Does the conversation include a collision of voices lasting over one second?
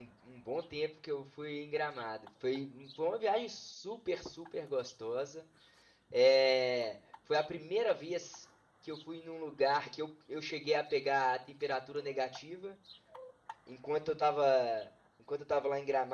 No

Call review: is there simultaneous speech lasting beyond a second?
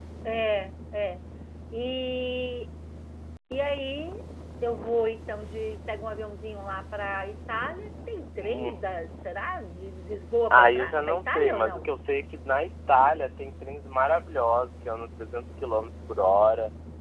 Yes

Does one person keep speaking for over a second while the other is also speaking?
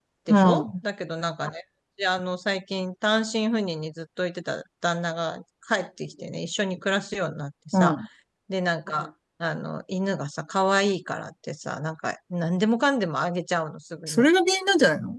No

